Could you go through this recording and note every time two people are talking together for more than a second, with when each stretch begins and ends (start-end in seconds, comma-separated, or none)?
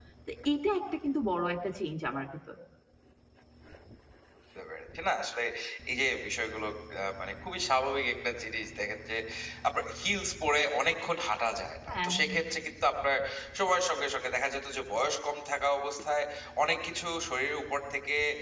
none